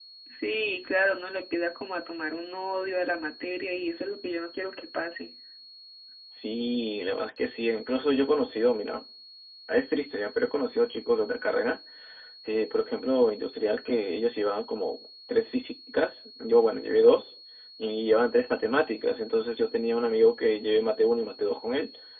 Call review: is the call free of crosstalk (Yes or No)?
Yes